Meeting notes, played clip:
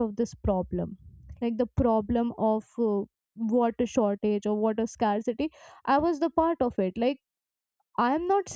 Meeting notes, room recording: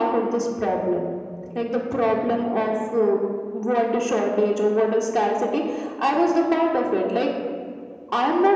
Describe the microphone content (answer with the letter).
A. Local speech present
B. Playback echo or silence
B